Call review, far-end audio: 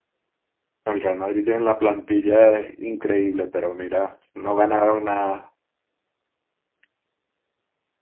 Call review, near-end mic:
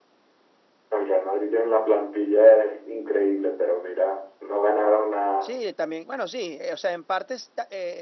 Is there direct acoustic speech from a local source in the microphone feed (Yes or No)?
Yes